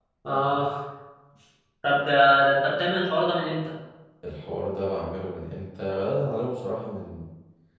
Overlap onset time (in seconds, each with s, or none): none